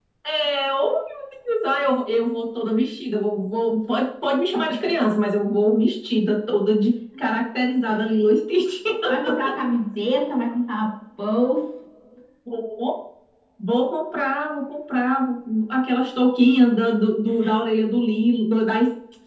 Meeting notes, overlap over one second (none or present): none